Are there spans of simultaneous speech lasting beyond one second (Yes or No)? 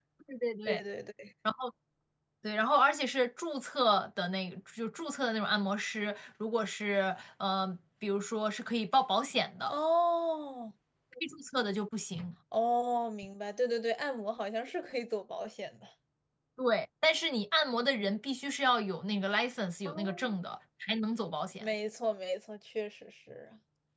No